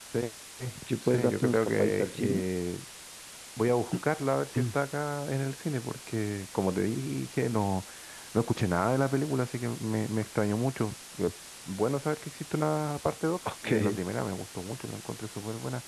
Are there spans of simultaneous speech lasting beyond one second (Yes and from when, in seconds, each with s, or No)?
Yes, from 1.1 s